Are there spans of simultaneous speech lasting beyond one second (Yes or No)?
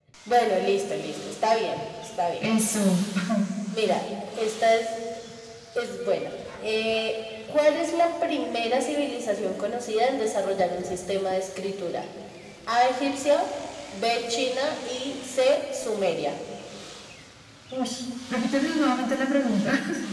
No